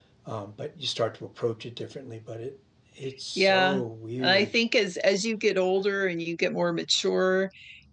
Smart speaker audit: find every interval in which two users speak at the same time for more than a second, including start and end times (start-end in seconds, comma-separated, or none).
none